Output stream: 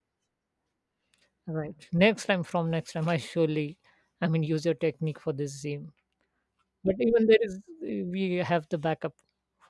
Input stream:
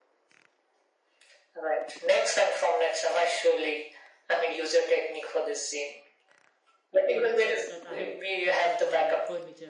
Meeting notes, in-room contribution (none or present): present